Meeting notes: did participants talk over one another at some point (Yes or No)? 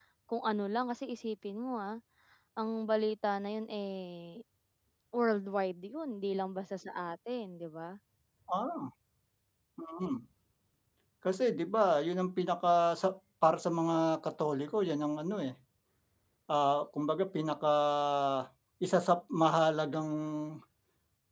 No